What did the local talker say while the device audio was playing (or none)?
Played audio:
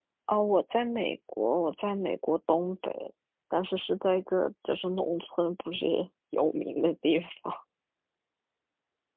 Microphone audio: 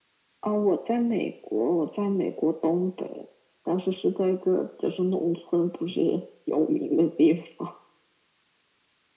none